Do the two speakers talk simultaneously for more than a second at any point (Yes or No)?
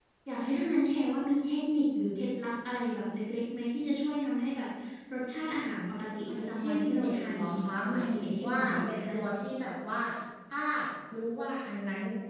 Yes